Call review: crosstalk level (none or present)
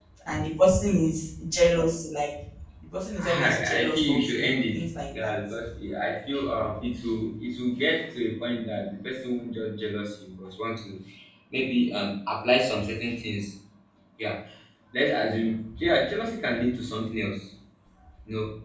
present